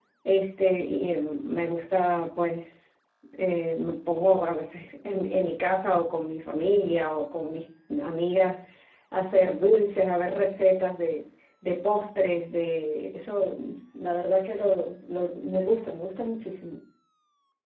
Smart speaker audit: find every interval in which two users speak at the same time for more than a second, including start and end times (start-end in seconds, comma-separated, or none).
none